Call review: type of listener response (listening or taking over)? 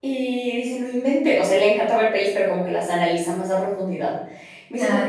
listening